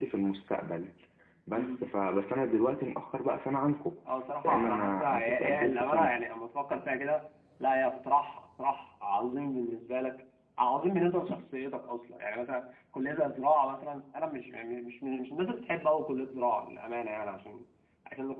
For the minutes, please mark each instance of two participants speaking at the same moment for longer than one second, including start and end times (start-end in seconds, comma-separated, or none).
4.4-6.2